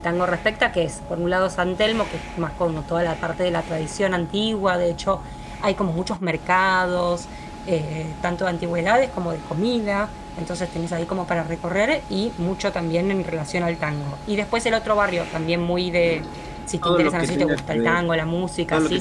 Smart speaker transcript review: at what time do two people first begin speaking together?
16.8 s

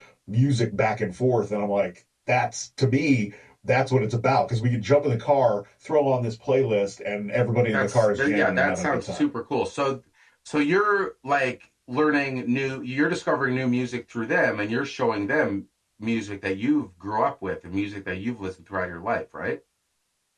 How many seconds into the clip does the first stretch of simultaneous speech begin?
7.7 s

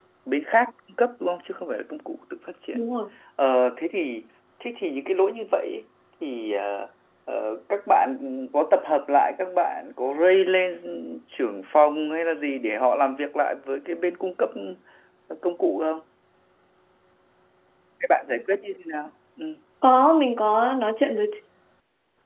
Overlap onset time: none

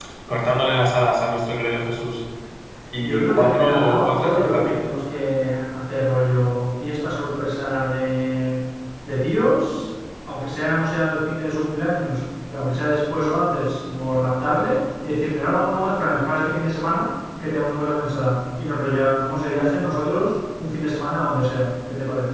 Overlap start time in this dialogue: 3.0 s

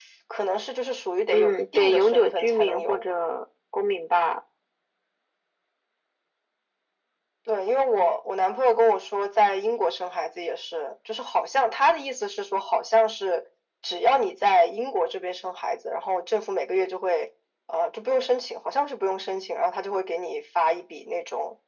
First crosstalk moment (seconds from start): 1.3 s

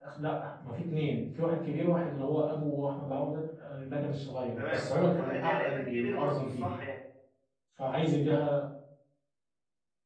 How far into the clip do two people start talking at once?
4.6 s

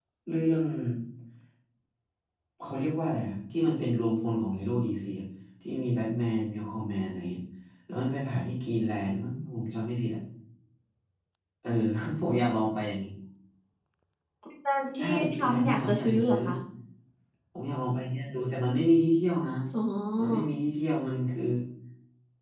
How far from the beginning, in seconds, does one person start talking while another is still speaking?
15.0 s

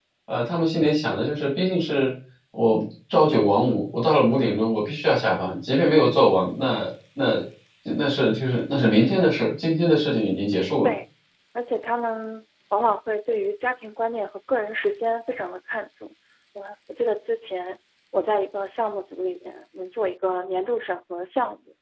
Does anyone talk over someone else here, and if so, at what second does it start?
none

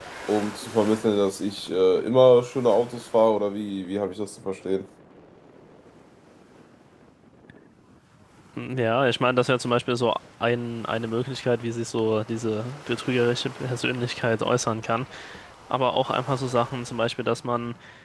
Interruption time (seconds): none

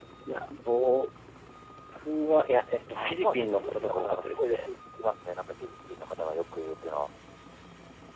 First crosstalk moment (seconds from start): 2.9 s

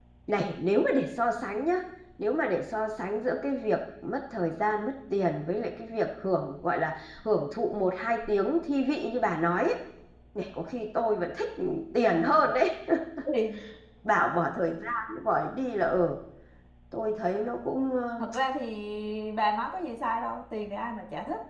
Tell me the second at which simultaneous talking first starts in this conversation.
none

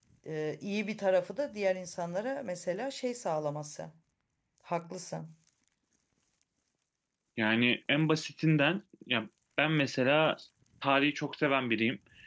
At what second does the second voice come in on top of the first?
none

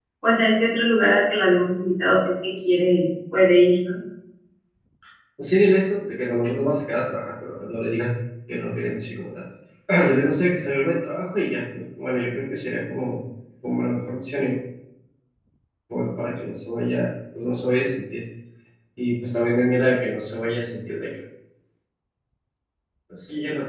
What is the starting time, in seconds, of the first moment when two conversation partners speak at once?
none

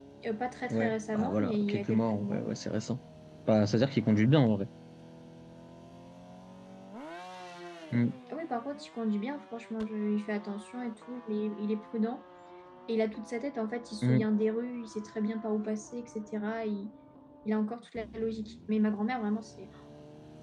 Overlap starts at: 0.7 s

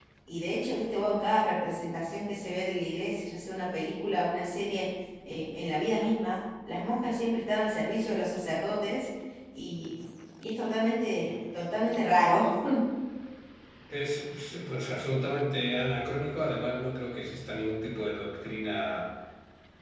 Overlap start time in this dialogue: none

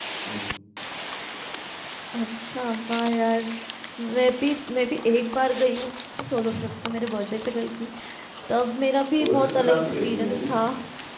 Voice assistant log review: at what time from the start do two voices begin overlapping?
9.2 s

